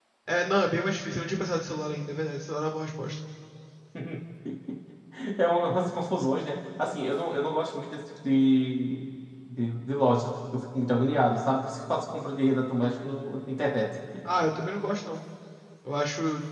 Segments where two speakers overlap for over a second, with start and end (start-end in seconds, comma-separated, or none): none